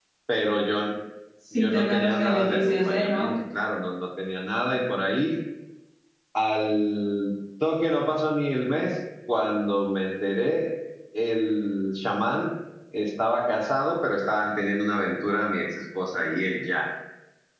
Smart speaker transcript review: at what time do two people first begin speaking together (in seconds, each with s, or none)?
1.5 s